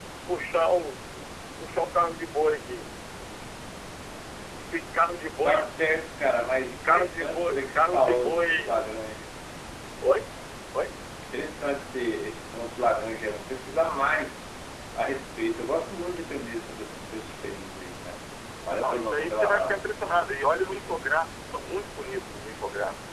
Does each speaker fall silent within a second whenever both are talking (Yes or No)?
No